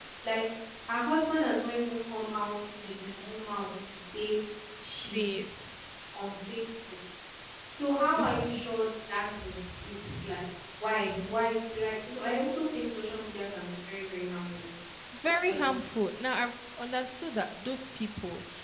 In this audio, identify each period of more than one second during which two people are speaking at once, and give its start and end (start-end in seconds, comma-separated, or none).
none